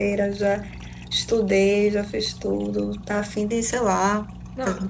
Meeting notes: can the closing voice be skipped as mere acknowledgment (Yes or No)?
No